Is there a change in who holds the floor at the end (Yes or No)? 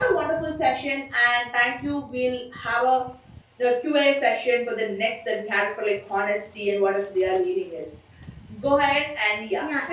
Yes